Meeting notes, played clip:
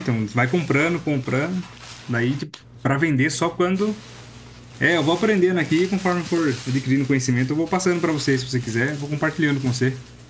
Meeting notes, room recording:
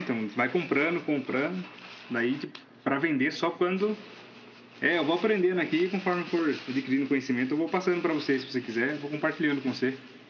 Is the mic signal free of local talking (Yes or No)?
Yes